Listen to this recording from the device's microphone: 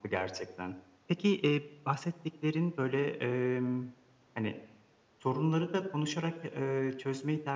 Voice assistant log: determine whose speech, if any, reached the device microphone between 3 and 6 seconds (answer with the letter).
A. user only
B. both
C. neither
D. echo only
D